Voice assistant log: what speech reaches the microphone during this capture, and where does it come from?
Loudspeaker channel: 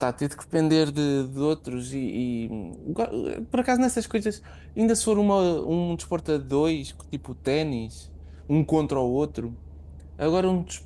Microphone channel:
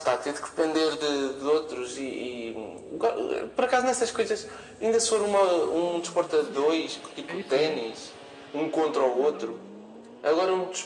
both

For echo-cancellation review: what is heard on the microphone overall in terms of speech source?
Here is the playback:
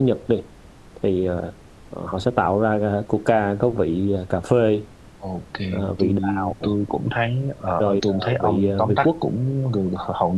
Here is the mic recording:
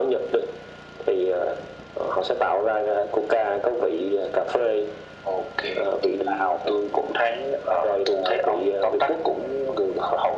echo only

